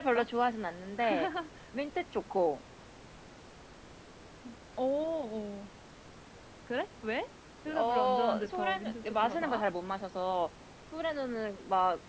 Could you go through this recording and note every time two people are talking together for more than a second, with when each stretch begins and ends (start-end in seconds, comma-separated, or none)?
7.8-9.6